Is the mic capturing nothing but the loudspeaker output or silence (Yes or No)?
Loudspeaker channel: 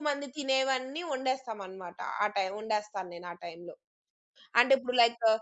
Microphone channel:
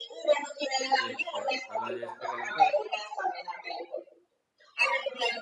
No